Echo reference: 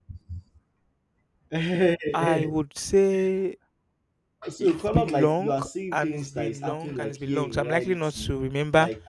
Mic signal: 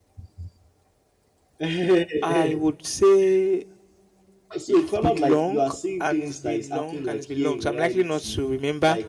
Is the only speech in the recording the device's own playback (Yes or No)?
Yes